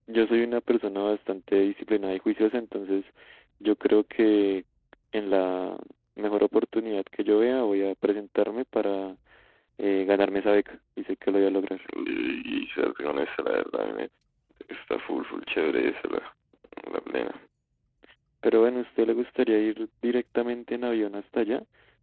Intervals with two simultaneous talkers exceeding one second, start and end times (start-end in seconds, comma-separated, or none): none